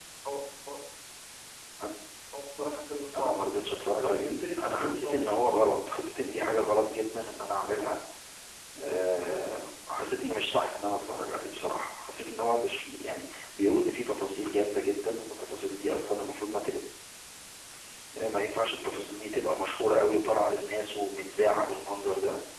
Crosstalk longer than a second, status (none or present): present